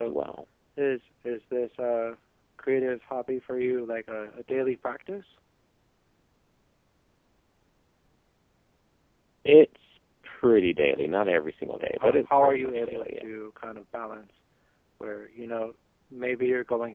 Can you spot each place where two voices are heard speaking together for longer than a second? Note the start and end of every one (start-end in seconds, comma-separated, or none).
11.7-13.3